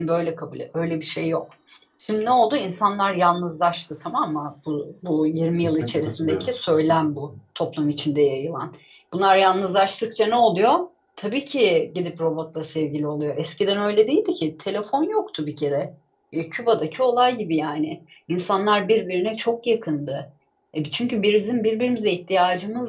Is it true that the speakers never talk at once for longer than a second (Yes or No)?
No